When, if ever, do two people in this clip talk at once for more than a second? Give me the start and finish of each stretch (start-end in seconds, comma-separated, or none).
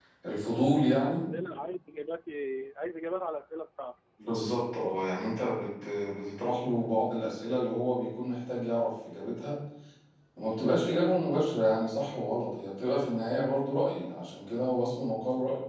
none